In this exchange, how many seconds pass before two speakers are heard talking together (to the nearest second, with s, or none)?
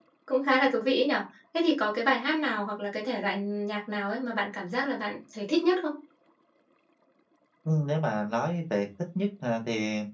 none